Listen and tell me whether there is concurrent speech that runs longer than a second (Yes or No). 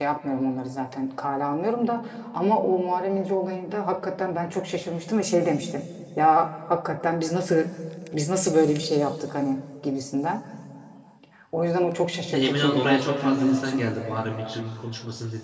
Yes